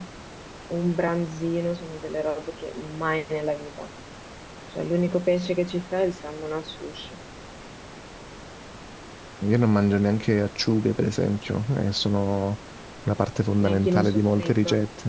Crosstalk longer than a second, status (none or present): present